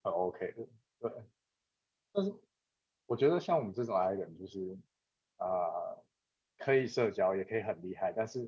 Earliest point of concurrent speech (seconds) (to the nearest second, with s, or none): none